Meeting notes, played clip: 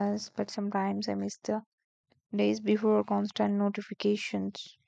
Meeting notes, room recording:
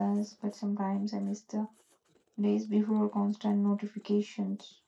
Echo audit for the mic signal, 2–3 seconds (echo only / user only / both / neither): echo only